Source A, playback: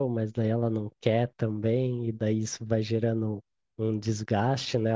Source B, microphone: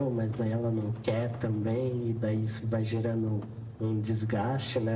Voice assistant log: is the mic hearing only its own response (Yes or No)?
Yes